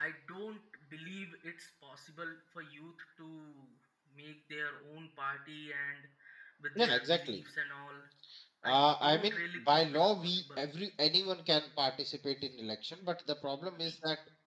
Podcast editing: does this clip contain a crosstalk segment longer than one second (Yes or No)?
Yes